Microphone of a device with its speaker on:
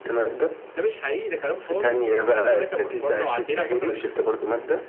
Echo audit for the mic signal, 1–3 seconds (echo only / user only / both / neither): echo only